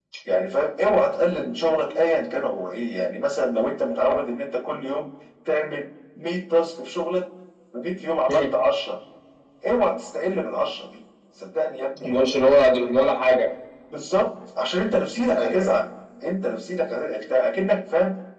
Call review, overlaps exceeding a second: none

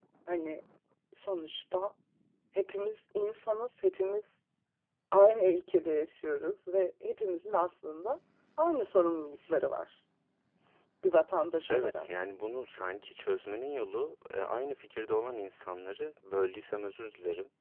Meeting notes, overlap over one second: none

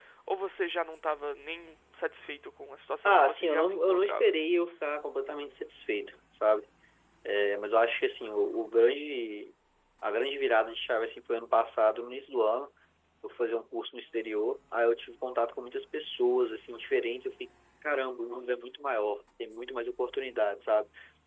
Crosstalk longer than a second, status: present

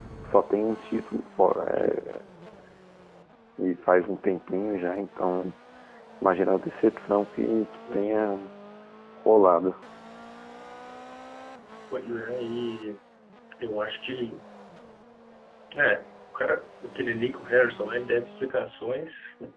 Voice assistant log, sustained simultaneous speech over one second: none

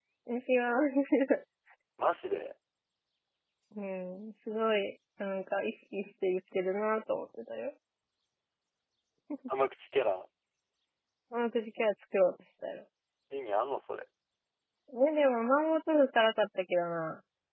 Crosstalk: none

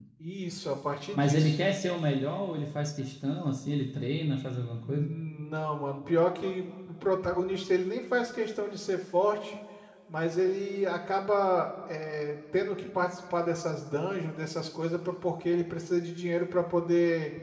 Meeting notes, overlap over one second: none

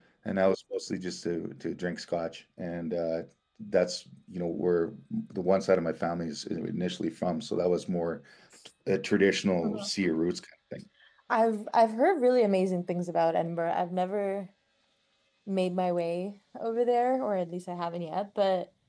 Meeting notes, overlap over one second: none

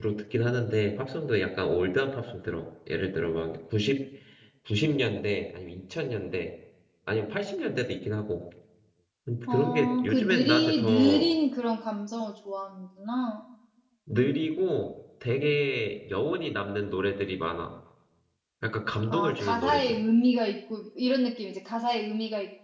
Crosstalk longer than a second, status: present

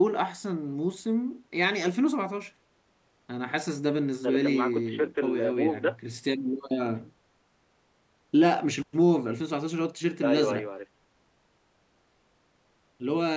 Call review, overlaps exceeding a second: present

